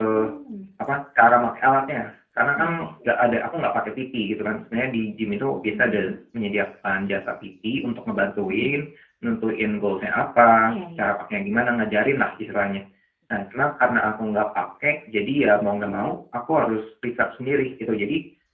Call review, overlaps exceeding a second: none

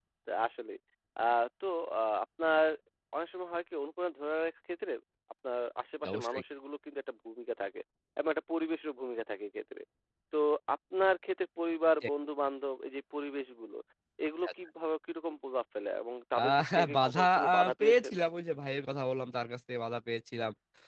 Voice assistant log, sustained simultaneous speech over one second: present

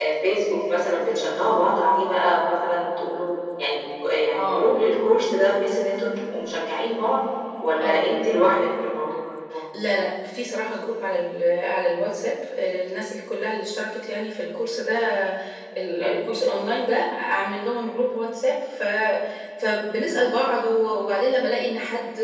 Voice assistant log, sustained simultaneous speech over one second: none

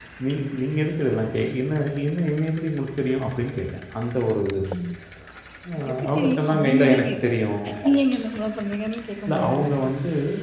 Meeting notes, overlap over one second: present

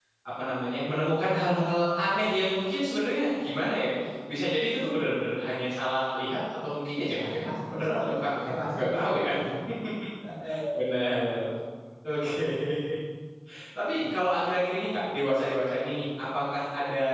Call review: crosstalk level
present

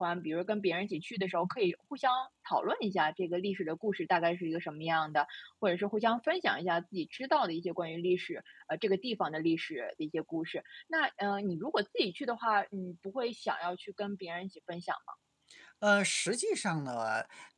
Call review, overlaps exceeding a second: none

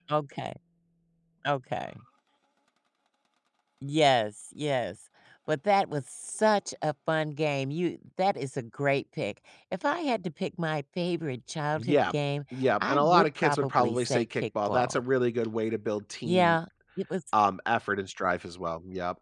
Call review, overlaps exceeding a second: present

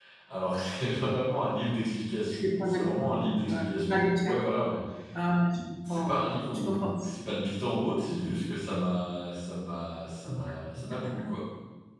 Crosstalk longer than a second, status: present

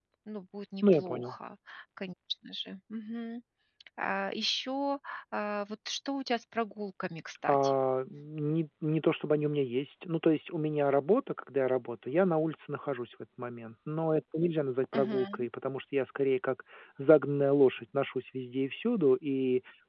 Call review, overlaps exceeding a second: none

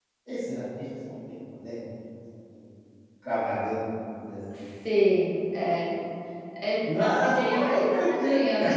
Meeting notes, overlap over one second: present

